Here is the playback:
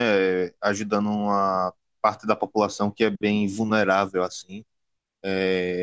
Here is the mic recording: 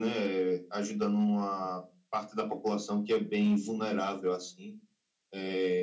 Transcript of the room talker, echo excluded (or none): none